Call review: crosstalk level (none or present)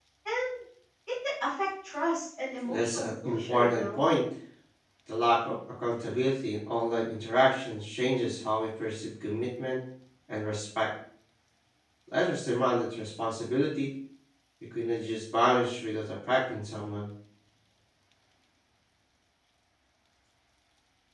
present